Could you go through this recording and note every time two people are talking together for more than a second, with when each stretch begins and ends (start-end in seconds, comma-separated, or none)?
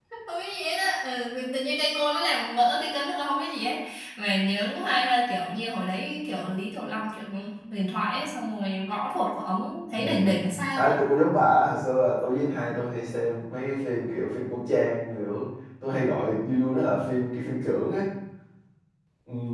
none